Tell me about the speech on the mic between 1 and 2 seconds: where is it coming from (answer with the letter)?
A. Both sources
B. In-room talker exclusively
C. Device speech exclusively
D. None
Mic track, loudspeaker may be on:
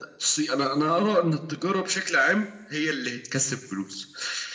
C